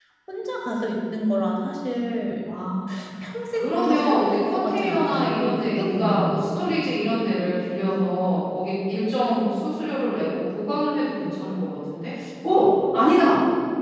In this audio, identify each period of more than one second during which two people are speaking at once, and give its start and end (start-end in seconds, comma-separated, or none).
3.6-6.6